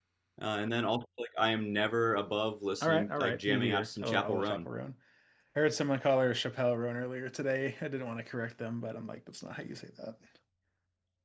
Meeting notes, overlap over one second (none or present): present